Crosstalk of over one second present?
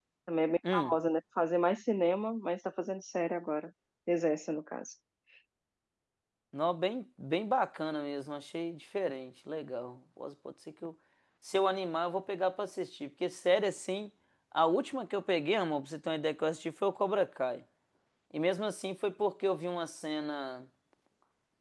No

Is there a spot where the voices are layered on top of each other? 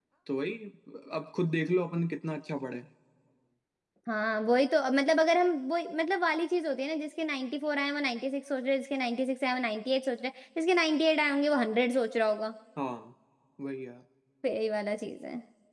No

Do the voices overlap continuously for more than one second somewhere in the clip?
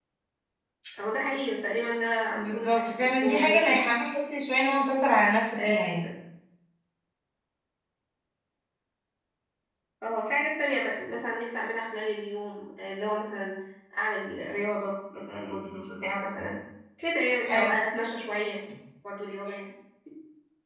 Yes, from 2.3 s

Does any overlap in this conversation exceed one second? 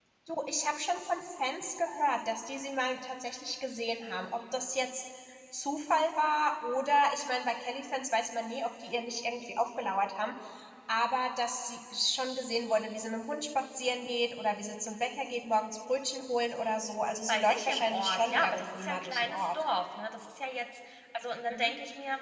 Yes, from 17.3 s

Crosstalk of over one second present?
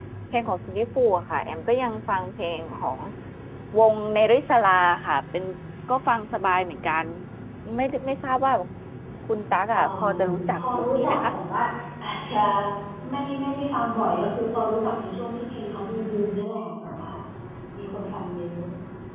Yes, from 9.7 s

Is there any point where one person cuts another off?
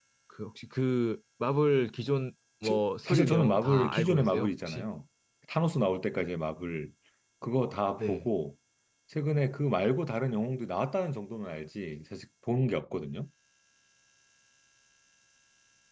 Yes, from 2.6 s

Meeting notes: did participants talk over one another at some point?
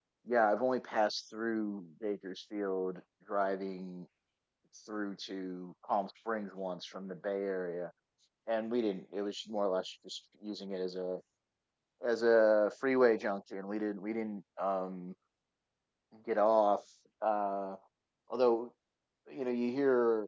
No

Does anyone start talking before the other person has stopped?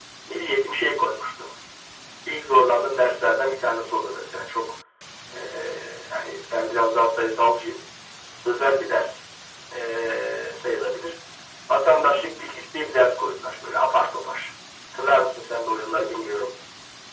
No

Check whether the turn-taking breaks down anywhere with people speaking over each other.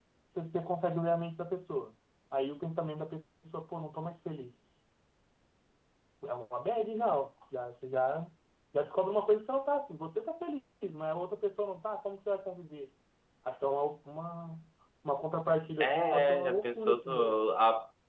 Yes, from 15.8 s

